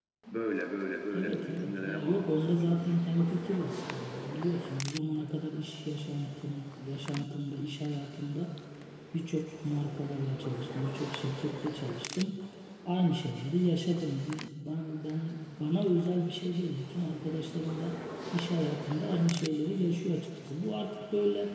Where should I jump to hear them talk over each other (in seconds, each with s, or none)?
1.1 s